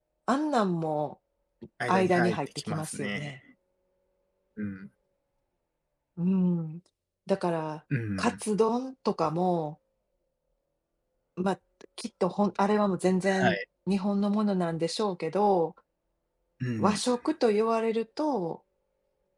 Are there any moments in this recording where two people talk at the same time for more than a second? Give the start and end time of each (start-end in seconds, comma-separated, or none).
1.9-3.3